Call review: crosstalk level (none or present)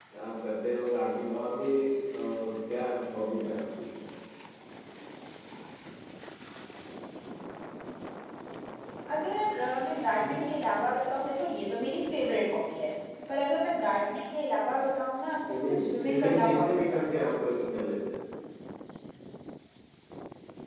present